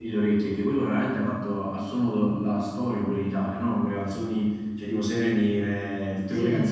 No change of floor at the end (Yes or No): Yes